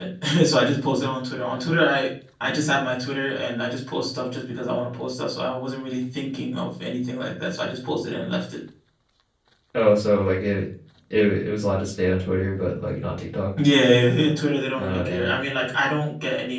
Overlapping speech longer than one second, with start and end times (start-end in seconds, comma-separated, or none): none